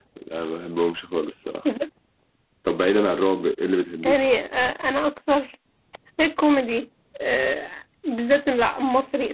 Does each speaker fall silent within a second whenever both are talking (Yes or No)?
Yes